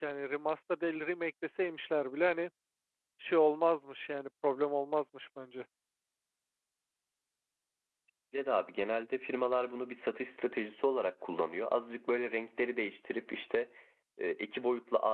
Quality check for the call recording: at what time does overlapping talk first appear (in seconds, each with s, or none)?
none